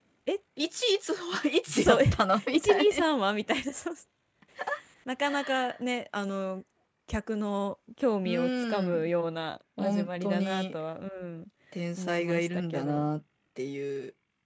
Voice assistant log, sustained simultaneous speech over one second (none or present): present